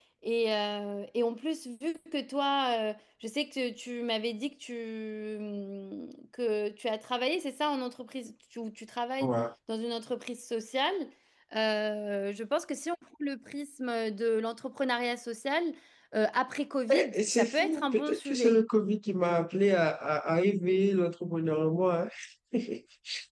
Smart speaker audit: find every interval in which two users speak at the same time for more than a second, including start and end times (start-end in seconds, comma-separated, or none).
16.9-18.5